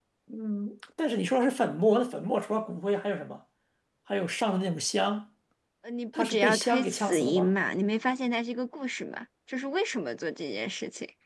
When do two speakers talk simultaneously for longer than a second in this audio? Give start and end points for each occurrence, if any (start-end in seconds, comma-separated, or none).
6.1-7.5